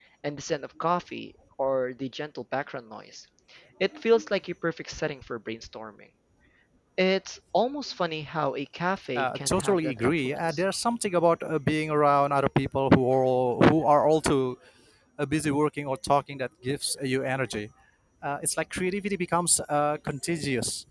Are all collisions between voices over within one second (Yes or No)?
No